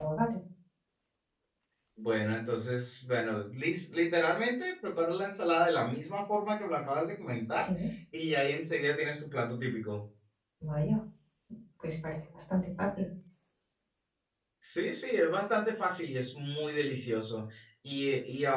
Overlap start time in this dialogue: none

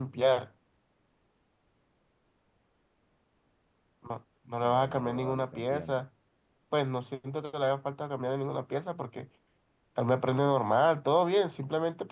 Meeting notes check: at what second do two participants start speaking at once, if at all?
4.5 s

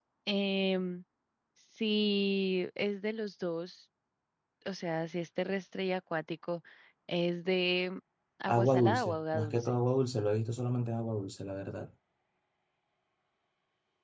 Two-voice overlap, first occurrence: 8.5 s

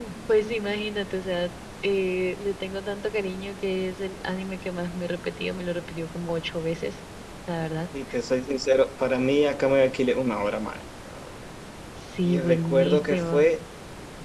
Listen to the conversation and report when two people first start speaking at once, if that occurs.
12.2 s

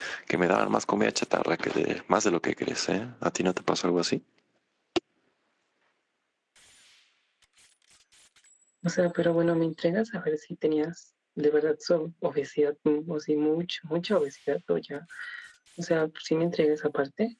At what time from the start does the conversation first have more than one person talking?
none

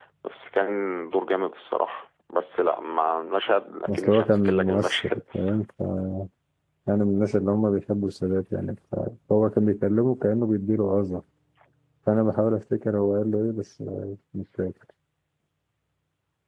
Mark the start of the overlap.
3.9 s

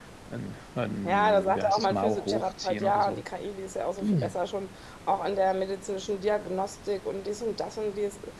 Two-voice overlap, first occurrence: 1.1 s

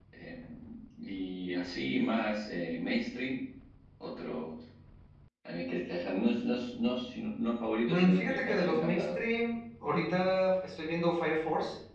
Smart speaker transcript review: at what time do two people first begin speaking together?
7.9 s

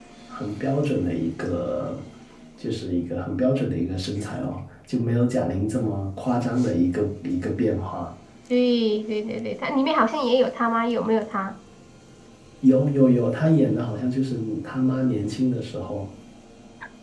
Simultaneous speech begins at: none

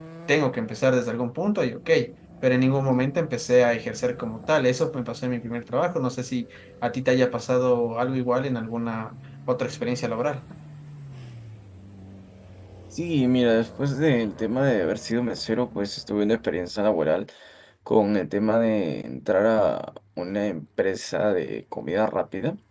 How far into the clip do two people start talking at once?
none

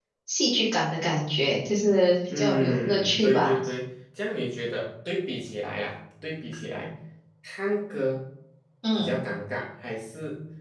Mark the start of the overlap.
2.3 s

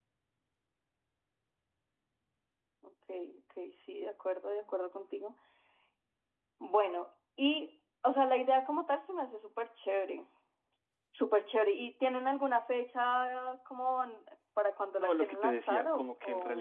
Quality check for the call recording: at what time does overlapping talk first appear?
15.0 s

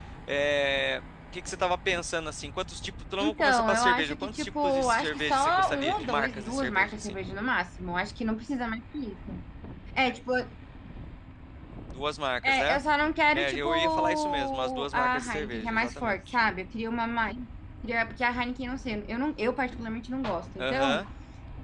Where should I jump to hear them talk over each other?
3.2 s

